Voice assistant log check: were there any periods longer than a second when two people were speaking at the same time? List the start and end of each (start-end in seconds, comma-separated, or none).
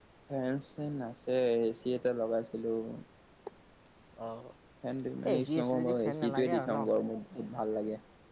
5.3-6.8